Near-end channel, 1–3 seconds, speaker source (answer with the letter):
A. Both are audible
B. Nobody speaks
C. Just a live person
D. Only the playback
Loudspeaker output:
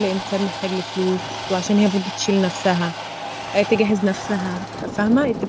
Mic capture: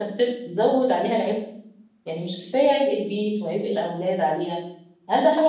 C